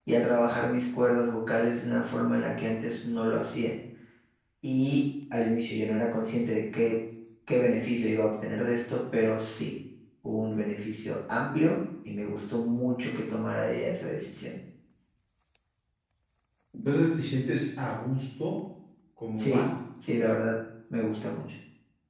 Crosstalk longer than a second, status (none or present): none